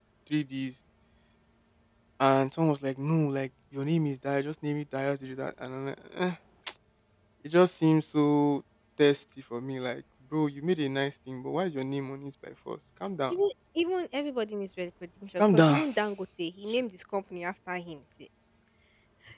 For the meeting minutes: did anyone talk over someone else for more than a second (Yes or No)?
No